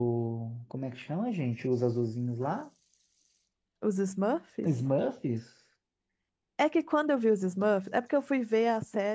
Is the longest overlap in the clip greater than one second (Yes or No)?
No